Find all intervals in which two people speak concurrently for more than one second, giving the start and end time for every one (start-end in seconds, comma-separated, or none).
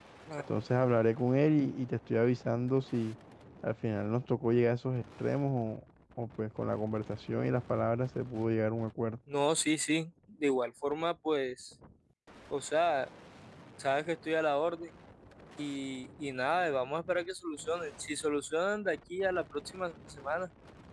none